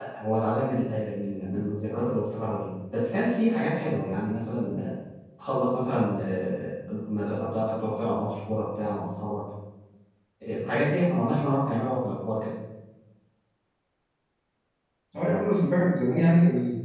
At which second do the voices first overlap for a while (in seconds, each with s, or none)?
none